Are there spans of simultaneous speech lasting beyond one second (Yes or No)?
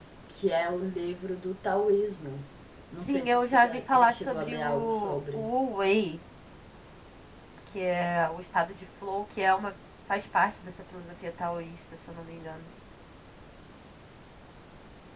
Yes